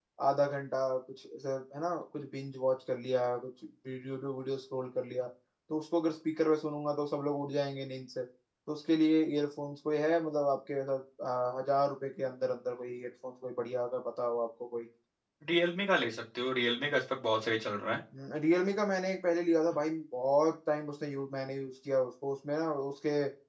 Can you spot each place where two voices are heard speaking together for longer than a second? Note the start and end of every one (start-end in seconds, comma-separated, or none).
none